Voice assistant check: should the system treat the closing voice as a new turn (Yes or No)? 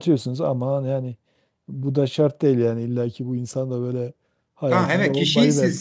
Yes